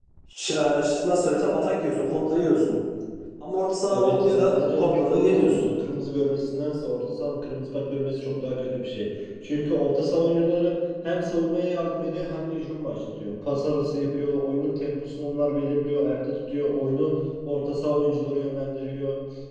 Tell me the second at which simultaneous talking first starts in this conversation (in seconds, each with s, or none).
3.9 s